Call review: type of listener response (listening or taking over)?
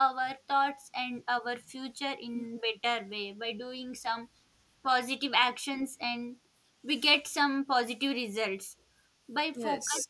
listening